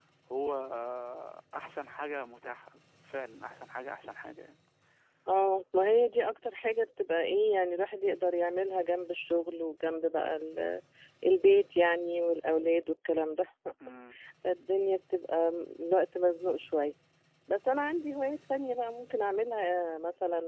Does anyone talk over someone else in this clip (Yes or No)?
No